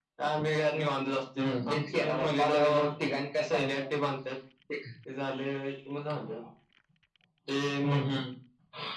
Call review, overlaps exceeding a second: present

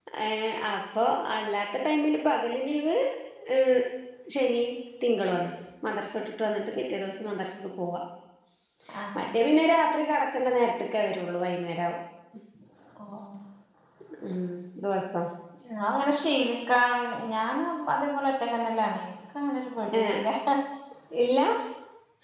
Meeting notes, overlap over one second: none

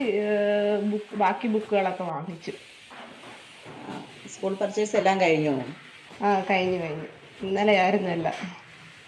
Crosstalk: none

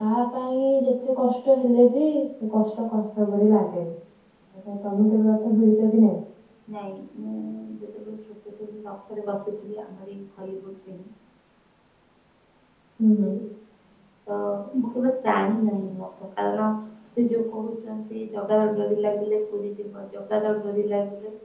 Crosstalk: none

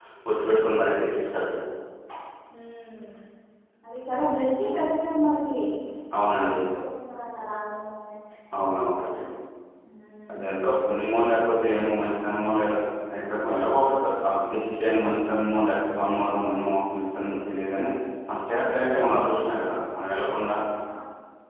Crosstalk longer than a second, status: none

